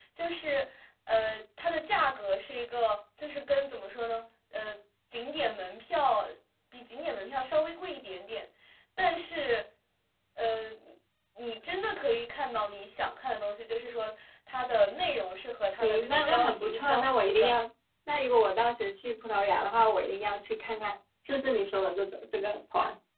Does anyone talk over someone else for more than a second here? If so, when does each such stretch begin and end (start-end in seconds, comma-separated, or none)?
15.8-17.5